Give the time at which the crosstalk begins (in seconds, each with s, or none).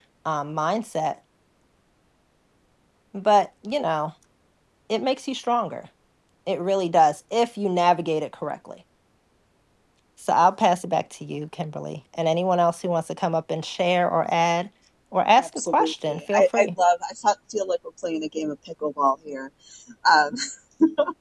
15.4 s